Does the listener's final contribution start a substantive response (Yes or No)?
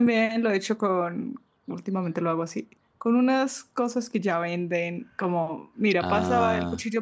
No